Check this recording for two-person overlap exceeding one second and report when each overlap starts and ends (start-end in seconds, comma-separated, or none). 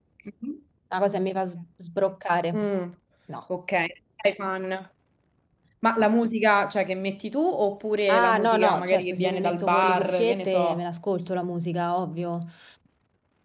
8.1-10.8